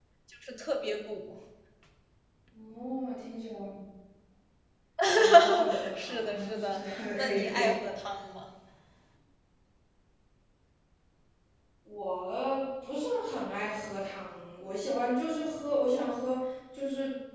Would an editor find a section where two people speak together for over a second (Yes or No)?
Yes